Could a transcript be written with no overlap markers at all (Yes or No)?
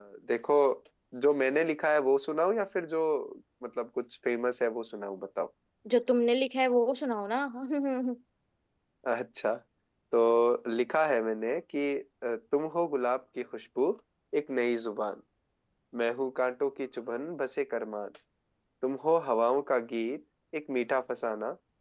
Yes